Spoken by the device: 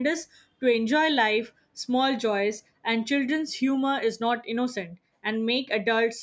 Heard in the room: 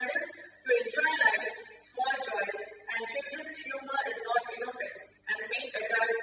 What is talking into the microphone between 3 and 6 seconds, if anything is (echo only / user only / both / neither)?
echo only